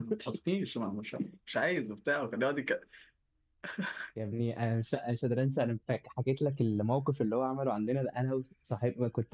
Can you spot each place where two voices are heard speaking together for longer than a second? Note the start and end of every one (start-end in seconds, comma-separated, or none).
none